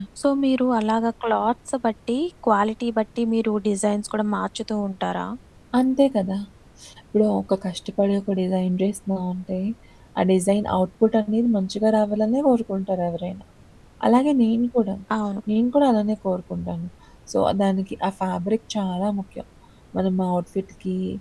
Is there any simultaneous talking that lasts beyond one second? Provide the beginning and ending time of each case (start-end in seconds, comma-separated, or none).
none